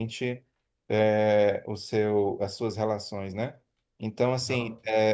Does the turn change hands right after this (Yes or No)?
No